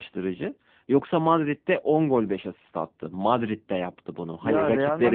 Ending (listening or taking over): taking over